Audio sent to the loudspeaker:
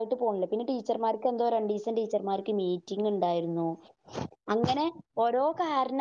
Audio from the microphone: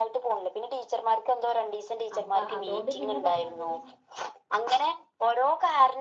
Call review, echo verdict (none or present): present